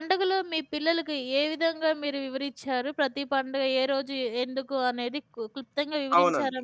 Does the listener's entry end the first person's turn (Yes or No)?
Yes